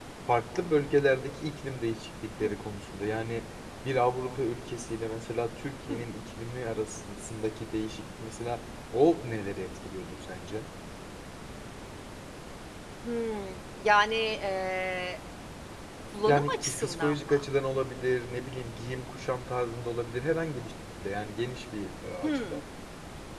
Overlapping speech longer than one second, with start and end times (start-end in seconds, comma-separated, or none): 16.3-17.5